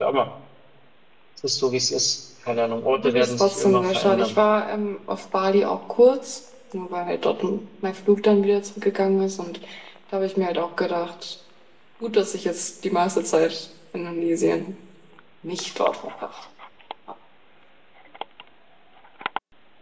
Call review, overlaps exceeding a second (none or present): present